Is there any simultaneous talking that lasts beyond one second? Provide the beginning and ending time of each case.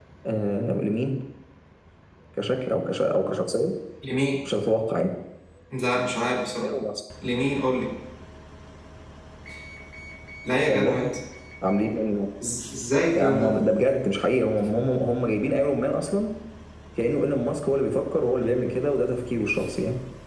none

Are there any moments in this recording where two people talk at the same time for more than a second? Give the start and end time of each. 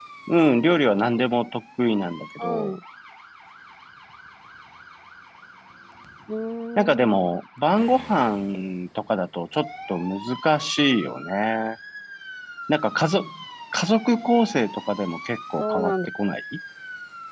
none

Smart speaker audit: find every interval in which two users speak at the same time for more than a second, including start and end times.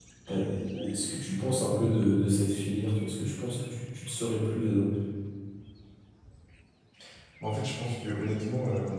none

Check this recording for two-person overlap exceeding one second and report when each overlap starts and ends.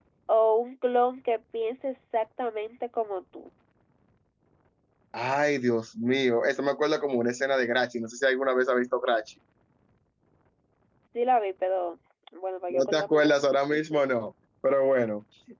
12.7-14.0

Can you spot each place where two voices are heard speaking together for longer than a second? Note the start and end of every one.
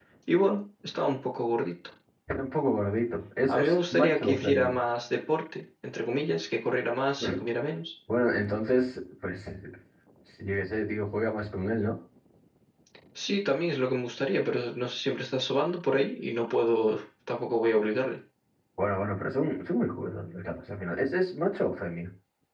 3.5-4.8

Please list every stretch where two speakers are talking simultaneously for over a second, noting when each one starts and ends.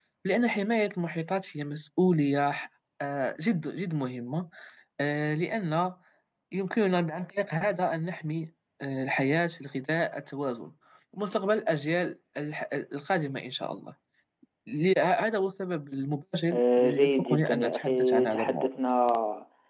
16.5-18.7

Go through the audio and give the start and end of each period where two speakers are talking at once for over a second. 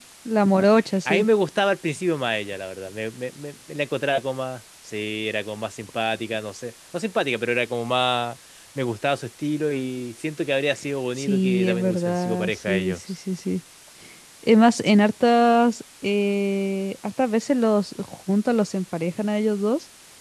11.2-13.0

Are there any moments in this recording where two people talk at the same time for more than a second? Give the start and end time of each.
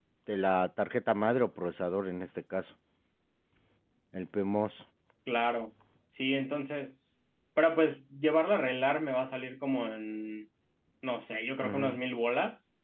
none

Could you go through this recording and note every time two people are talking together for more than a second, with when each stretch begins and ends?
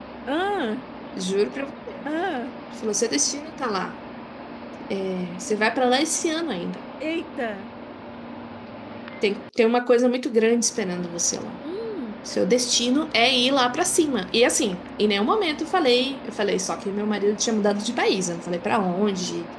none

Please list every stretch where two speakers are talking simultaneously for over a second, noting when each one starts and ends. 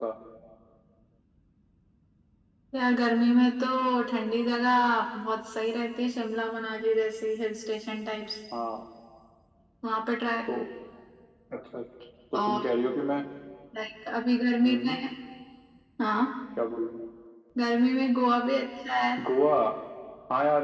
none

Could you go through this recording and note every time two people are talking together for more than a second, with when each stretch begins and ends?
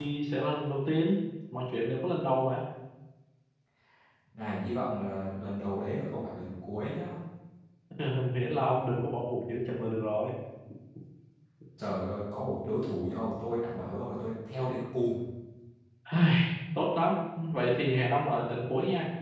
none

